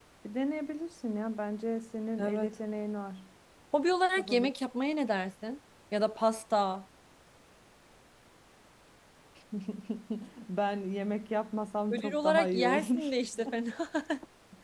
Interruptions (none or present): present